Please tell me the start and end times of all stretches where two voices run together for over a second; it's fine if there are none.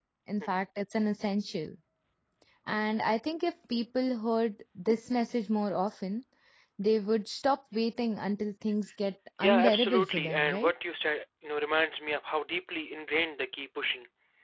9.4-10.7

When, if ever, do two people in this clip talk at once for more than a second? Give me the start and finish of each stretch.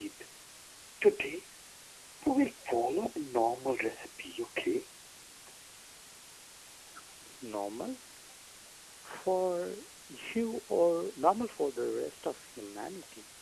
none

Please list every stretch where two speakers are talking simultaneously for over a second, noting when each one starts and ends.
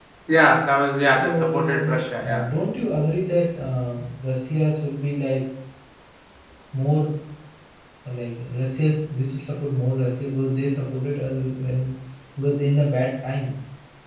1.1-2.4

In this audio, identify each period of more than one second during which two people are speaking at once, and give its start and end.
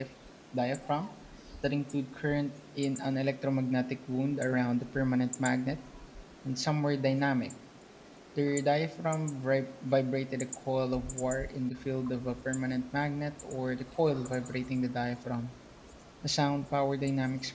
none

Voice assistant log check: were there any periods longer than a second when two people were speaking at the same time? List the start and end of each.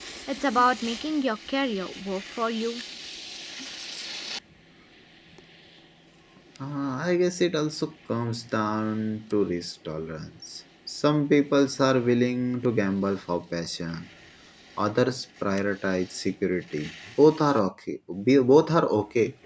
none

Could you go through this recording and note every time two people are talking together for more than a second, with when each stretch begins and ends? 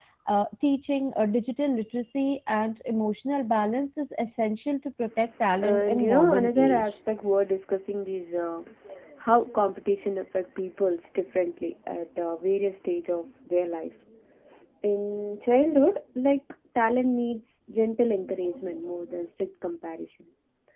5.6-6.8

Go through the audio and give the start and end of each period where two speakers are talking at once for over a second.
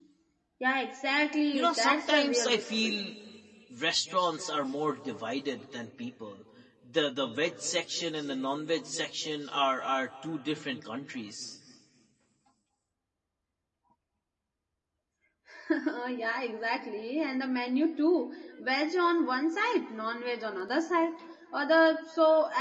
1.5-3.0

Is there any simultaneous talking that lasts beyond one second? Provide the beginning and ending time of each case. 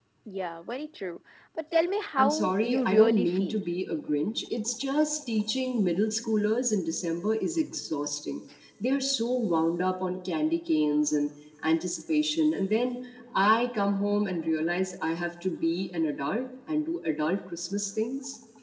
2.2-3.6

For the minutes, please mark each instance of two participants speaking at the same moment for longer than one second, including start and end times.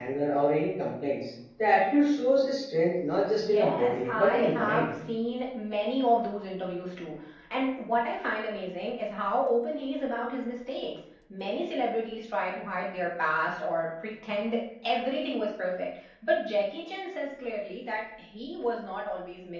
3.3-4.9

